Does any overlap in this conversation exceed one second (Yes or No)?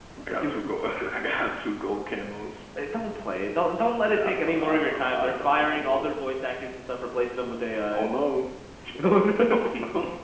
Yes